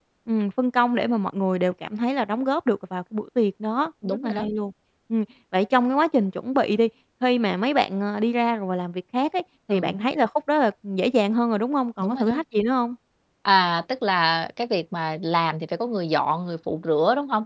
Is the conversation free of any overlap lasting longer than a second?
Yes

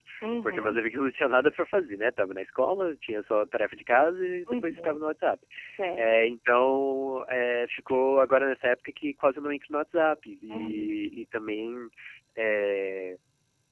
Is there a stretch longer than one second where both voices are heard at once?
No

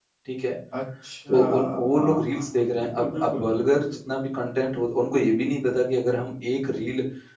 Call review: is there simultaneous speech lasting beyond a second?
Yes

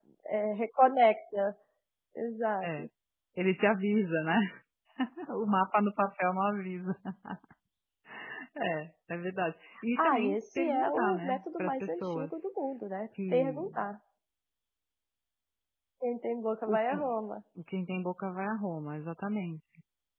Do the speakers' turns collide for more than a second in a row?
Yes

